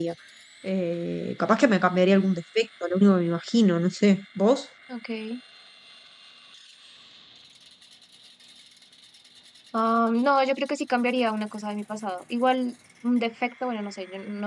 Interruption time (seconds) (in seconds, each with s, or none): none